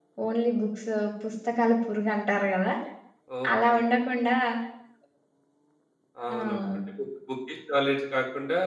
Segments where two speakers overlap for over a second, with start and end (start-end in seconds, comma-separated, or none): none